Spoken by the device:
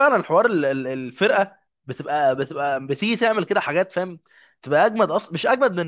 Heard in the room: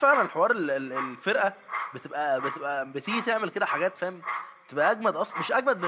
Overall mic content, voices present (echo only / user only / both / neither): echo only